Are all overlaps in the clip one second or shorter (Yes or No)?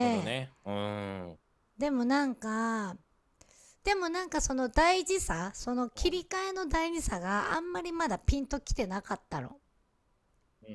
Yes